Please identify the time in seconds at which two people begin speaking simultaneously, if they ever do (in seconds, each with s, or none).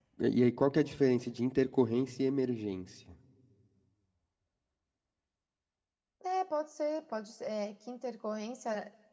none